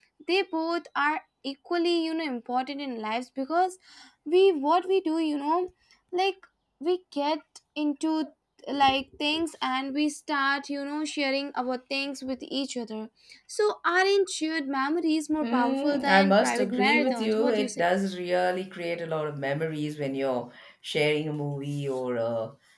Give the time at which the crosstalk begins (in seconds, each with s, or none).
15.4 s